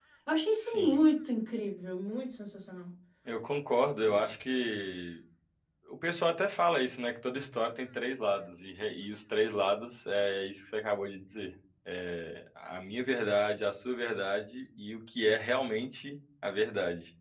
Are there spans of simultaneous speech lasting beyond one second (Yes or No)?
No